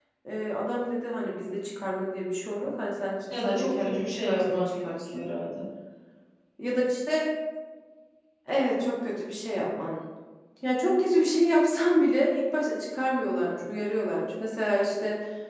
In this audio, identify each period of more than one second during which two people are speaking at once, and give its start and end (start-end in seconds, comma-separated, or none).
3.4-5.2